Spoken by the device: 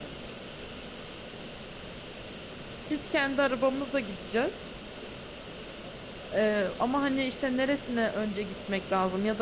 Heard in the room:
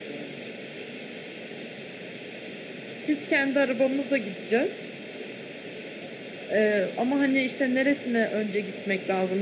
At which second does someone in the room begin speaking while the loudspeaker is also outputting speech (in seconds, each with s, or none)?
none